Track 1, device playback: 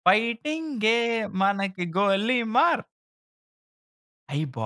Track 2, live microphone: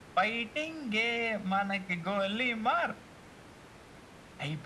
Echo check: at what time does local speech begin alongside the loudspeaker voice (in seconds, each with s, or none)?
none